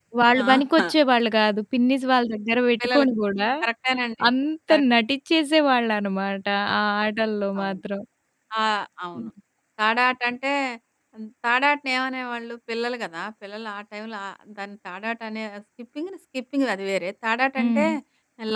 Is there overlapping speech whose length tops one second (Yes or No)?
No